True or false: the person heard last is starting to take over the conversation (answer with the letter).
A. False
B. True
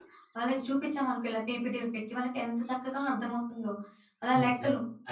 B